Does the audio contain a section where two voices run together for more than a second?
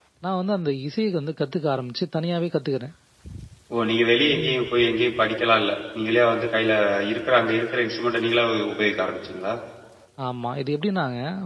No

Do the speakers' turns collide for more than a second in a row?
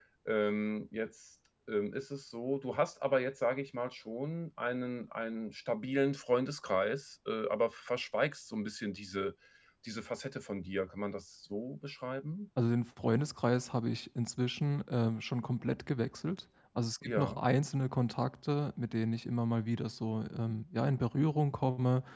No

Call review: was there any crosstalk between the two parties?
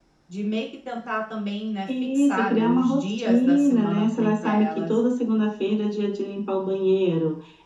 Yes, from 1.9 s

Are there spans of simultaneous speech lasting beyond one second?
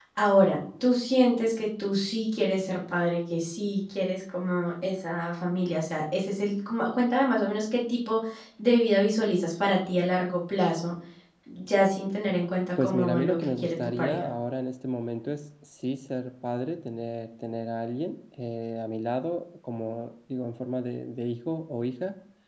Yes, from 12.8 s

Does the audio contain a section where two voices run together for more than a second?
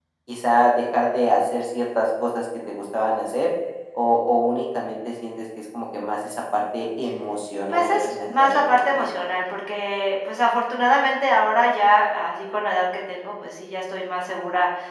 Yes, from 7.7 s

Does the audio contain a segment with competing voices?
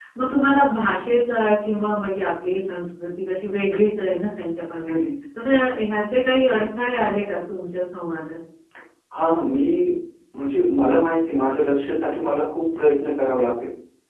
No

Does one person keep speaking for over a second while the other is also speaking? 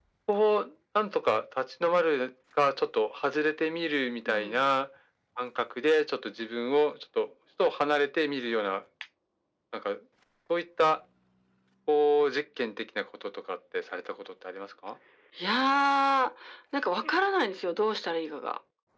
No

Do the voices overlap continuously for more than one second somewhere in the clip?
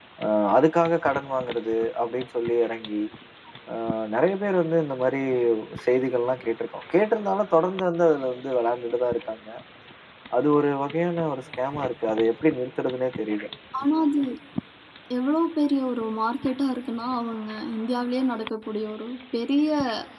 No

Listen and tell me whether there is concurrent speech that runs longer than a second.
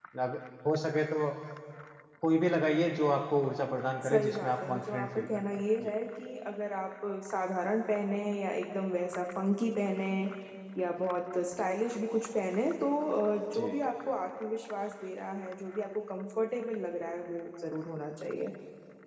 Yes, from 4.0 s

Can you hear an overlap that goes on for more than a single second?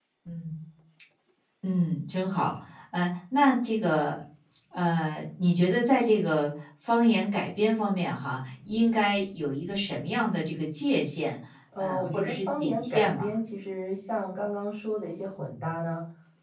Yes, from 11.8 s

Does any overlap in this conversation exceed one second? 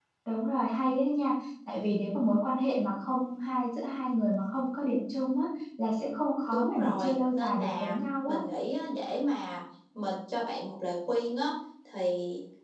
Yes, from 6.5 s

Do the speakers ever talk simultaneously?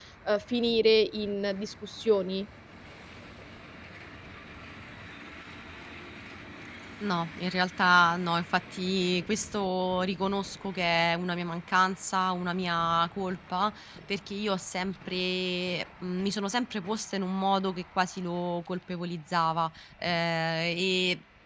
No

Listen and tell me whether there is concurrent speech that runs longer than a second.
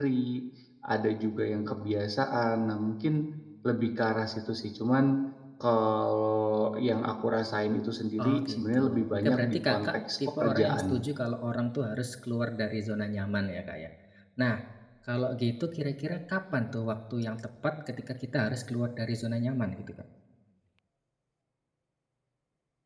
Yes, from 8.2 s

